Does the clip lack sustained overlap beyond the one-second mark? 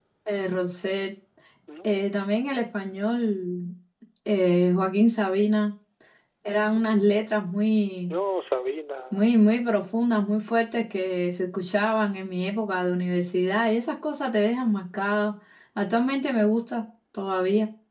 Yes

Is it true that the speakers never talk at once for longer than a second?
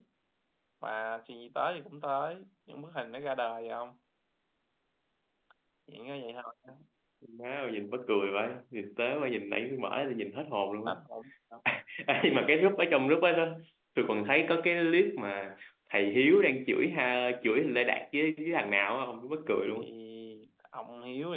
Yes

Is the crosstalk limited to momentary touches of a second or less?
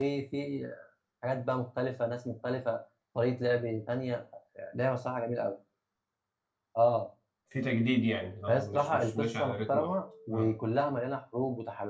No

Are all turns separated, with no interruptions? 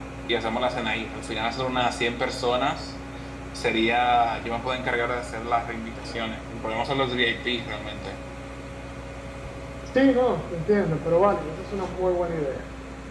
Yes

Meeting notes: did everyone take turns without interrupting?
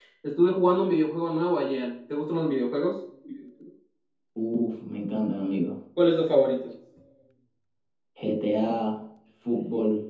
Yes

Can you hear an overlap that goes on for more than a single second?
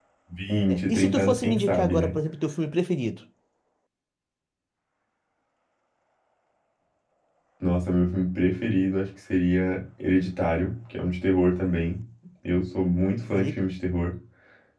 Yes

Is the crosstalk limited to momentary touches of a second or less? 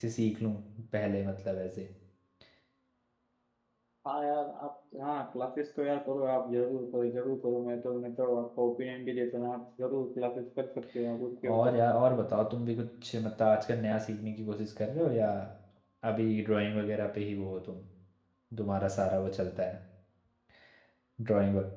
Yes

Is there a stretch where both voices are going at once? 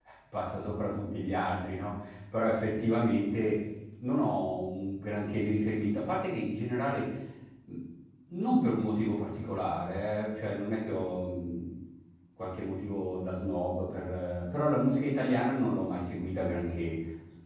No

